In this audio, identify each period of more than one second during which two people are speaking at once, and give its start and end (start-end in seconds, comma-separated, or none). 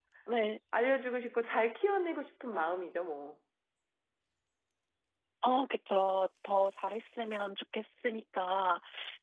none